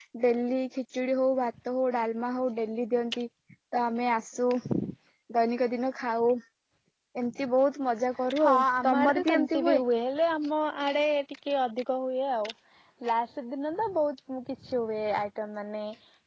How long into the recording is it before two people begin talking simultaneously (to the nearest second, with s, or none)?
8 s